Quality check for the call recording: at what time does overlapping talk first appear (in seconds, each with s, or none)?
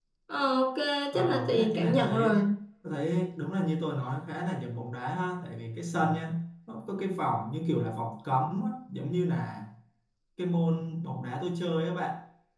1.1 s